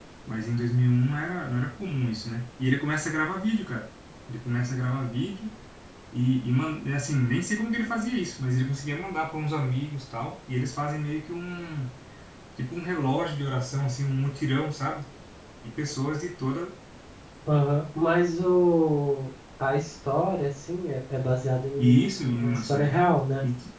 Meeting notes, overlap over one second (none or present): present